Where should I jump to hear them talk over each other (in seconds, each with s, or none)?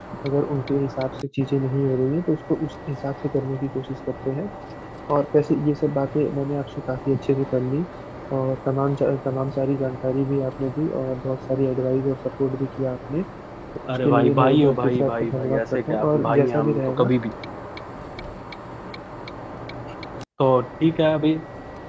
13.9 s